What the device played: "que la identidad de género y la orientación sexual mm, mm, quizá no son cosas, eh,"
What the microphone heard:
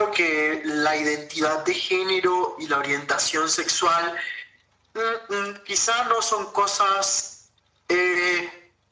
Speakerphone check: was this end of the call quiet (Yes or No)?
Yes